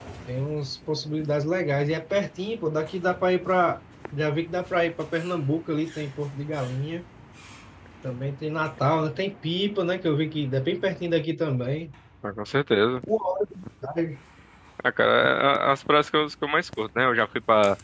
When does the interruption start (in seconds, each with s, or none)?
none